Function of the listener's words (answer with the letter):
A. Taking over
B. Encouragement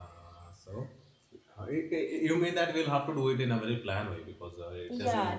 A